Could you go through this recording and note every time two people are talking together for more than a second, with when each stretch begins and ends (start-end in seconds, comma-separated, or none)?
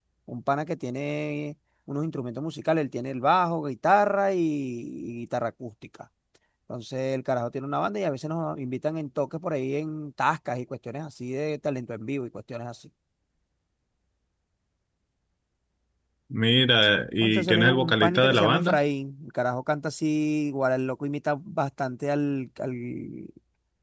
17.2-18.8